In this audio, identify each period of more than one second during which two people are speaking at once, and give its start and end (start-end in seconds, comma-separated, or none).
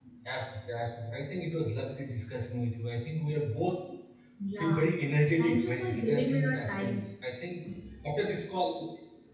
5.4-7.0